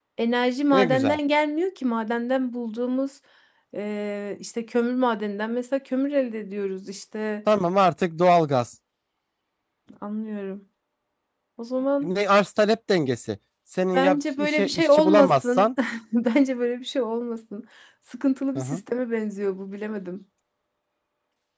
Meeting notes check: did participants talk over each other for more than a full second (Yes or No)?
Yes